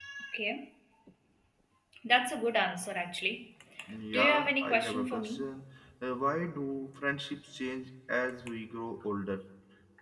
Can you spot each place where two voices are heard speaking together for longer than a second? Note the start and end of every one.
4.1-5.4

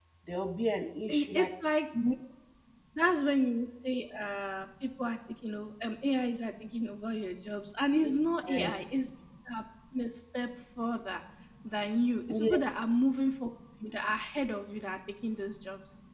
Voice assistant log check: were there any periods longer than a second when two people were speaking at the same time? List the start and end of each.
none

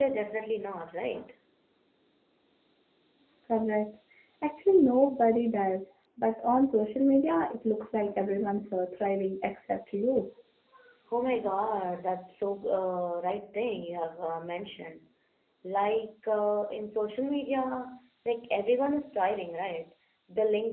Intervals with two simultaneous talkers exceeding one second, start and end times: none

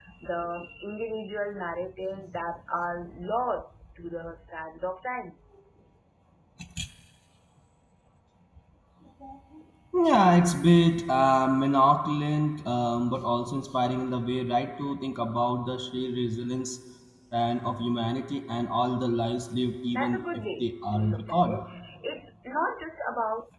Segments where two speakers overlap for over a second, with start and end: 19.9-21.6

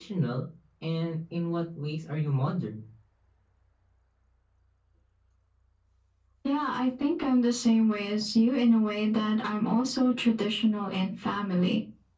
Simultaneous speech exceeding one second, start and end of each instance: none

